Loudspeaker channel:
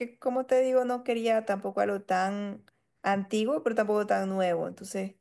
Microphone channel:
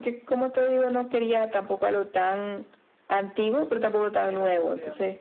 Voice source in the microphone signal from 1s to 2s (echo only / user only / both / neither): echo only